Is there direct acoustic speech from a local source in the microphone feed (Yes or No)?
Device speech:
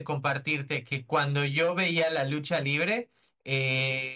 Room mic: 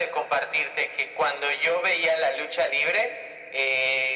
No